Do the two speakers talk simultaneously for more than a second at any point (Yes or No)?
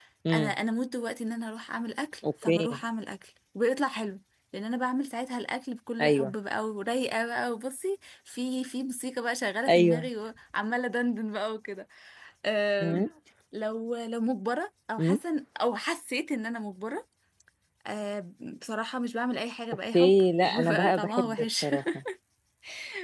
Yes